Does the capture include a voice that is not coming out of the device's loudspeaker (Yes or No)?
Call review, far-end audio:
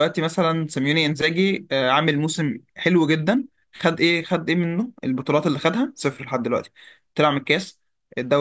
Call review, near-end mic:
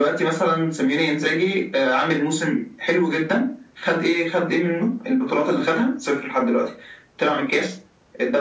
No